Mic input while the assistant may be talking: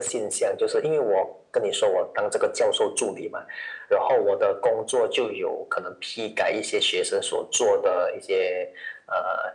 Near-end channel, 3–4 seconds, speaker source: echo only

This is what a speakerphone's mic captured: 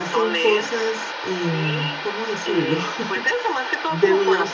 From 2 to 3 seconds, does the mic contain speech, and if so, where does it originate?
both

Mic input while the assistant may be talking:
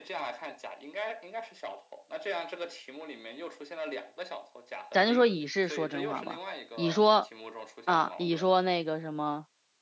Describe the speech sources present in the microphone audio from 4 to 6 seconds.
both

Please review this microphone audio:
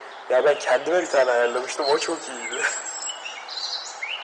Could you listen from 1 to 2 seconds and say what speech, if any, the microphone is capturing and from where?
echo only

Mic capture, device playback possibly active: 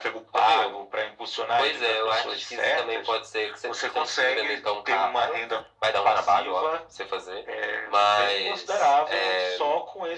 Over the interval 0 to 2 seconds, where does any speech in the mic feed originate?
echo only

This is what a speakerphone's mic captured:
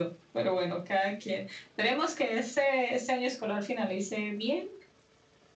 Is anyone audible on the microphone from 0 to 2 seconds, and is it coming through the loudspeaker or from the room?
echo only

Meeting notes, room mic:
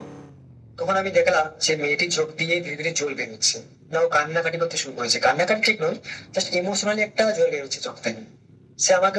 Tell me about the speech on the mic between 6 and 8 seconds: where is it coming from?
echo only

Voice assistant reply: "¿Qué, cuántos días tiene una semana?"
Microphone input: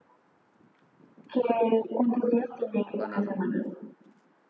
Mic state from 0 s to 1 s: neither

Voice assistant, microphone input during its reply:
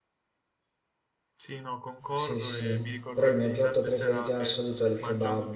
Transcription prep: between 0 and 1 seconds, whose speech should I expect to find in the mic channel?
neither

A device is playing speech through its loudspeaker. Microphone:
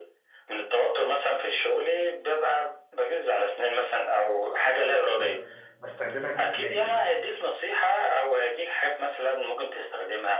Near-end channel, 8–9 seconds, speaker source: echo only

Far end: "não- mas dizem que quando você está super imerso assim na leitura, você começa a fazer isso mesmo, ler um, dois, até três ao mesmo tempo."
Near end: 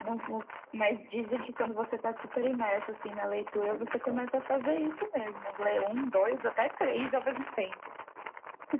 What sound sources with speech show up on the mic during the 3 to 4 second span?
both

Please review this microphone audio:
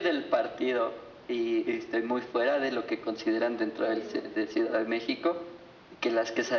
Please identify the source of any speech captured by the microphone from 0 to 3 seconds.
echo only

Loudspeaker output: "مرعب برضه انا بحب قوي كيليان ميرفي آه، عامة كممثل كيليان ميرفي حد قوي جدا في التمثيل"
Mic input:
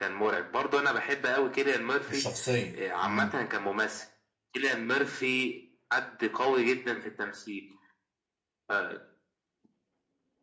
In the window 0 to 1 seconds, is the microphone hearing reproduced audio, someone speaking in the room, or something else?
echo only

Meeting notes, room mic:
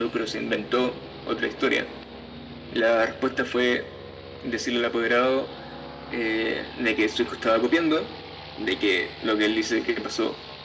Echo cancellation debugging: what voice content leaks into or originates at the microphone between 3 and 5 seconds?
echo only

